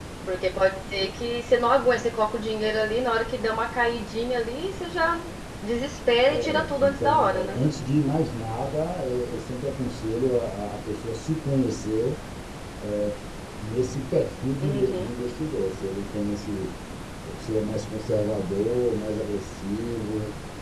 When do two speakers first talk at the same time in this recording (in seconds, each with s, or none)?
6.3 s